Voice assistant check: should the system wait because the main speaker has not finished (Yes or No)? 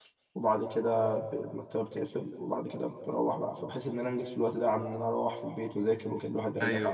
No